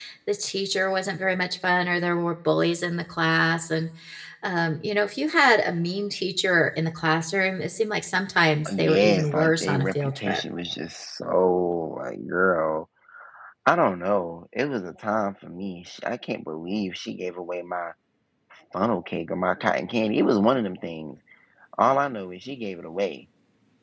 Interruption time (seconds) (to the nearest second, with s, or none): 9 s